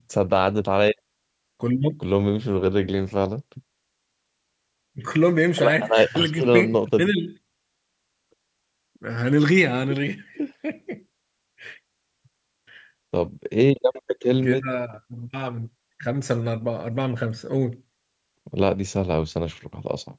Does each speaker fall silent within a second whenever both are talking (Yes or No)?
No